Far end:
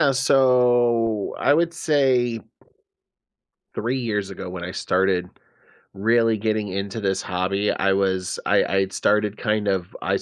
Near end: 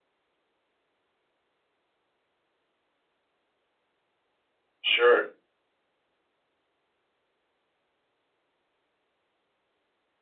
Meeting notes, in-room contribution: present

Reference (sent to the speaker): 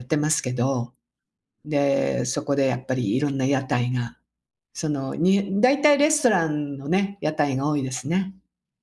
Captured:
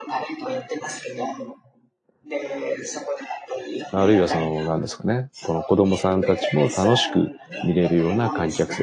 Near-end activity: present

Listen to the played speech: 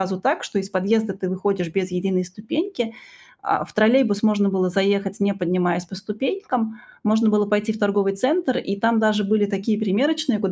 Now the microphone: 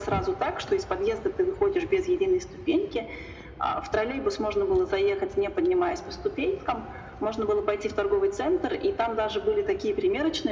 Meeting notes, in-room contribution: none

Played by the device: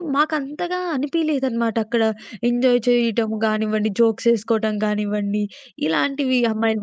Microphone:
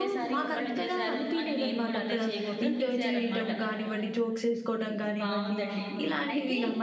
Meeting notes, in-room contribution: present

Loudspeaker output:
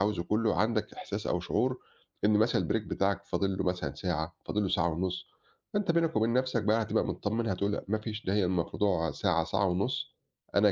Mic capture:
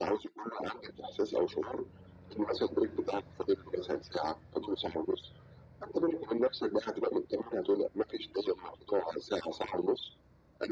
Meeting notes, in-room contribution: none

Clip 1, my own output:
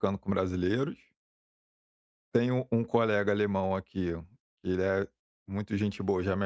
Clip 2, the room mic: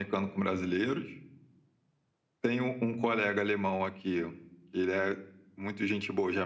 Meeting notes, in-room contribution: none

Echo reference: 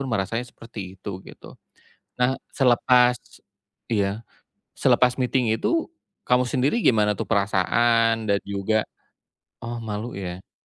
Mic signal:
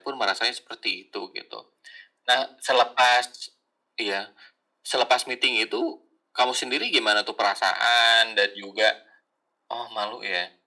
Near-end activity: none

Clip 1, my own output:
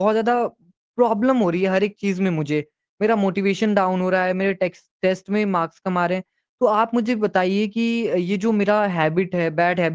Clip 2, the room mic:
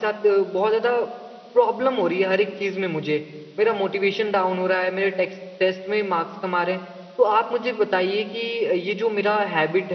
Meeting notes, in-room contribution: none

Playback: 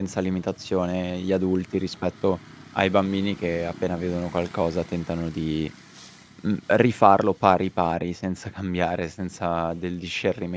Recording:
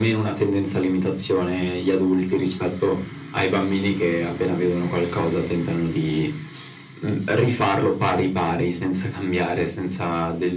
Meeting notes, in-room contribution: none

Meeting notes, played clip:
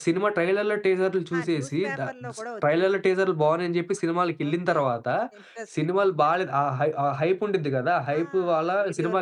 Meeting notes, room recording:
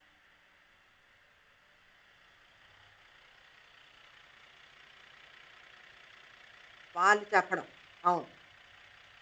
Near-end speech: present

